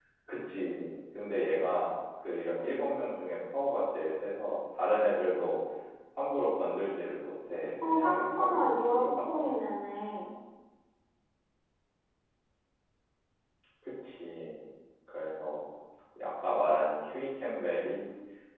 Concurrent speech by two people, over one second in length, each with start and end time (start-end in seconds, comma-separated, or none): 7.8-9.6